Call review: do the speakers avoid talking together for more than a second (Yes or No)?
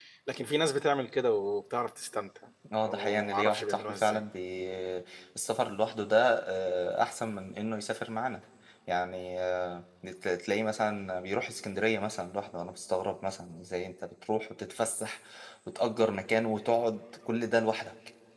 No